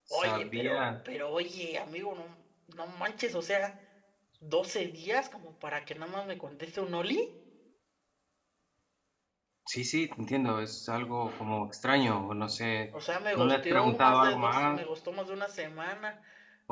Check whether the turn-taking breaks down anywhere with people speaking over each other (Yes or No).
Yes